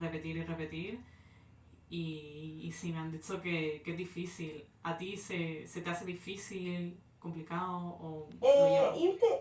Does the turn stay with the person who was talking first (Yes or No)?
No